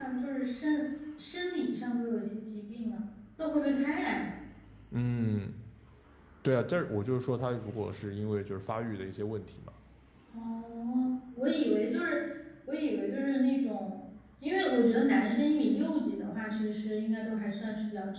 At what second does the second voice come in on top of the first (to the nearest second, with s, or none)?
none